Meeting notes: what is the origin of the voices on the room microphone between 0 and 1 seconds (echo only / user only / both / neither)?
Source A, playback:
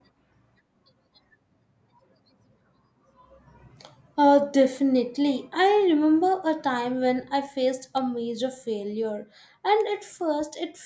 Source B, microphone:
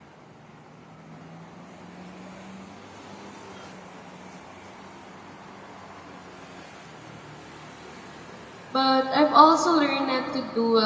neither